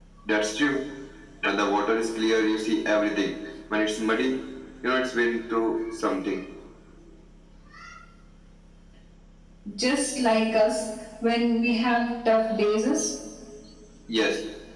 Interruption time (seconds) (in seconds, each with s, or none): none